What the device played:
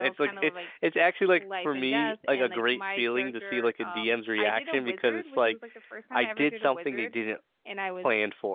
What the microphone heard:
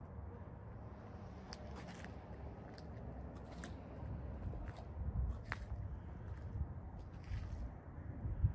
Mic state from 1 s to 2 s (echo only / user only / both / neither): neither